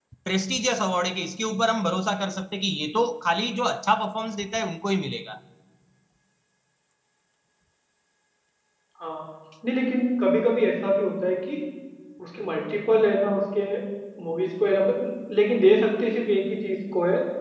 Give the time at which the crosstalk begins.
none

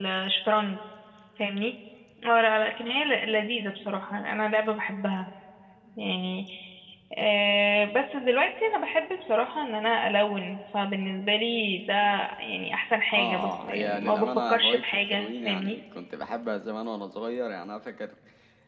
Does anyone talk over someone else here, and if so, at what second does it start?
13.1 s

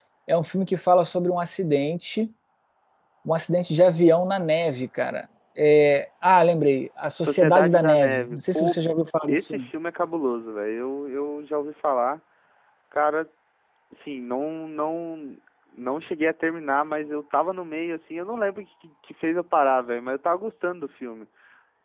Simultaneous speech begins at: 7.2 s

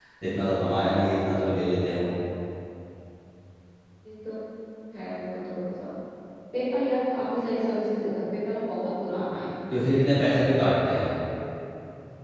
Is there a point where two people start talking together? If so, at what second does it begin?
none

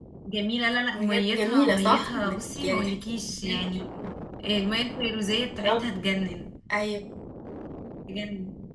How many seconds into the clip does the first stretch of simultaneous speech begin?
0.9 s

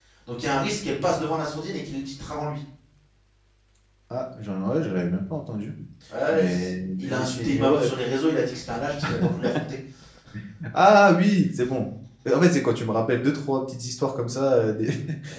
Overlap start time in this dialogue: 6.3 s

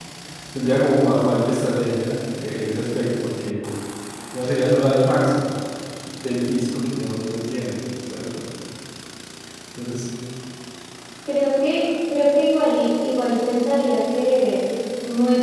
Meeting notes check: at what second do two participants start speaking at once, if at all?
none

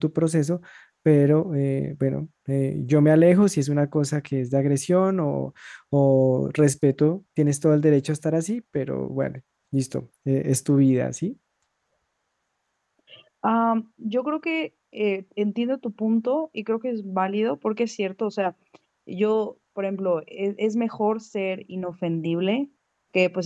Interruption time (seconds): none

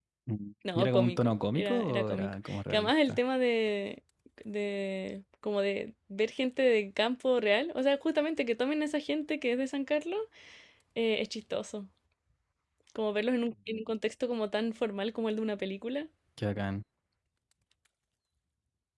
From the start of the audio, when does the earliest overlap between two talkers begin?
0.8 s

